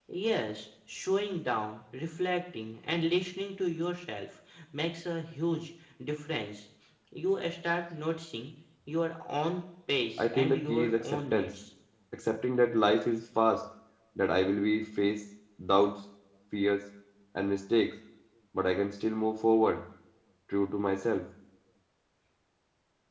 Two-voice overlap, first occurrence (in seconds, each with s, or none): 10.2 s